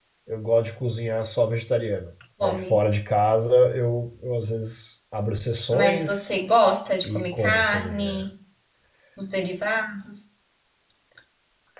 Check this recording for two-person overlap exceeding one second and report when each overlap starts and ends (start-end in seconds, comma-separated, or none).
7.0-8.2